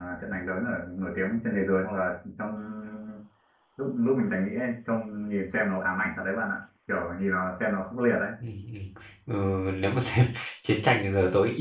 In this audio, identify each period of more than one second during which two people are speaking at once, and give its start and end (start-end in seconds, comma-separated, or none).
none